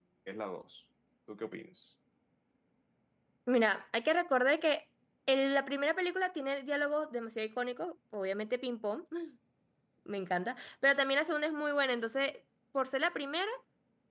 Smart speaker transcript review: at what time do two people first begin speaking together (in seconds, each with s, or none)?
none